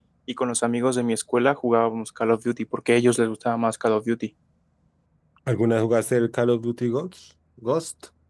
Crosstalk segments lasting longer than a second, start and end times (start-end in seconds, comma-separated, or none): none